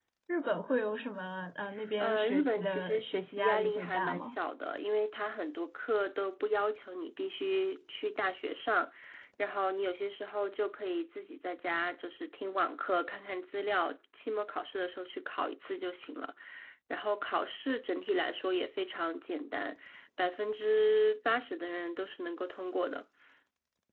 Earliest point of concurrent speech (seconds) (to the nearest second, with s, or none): 2 s